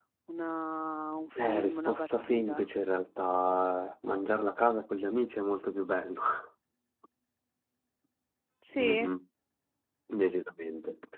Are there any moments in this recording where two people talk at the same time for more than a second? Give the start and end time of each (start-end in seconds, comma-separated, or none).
1.4-2.7